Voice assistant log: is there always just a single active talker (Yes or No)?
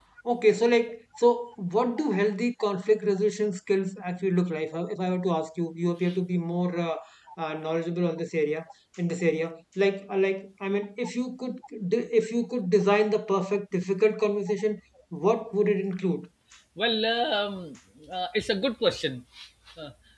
Yes